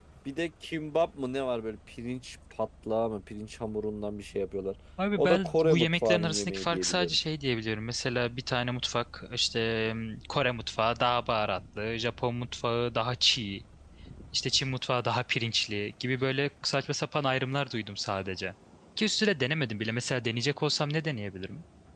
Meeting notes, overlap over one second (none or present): present